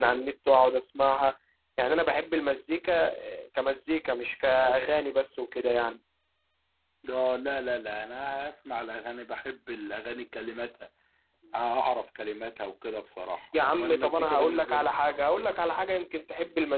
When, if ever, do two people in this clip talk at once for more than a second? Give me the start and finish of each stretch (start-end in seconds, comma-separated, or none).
13.6-14.9